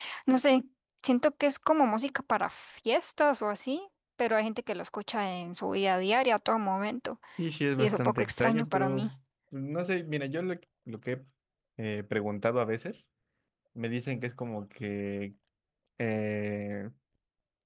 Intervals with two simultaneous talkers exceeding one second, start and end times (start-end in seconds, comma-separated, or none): 7.8-9.1